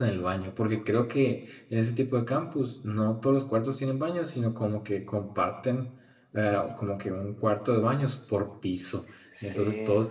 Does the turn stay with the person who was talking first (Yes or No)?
Yes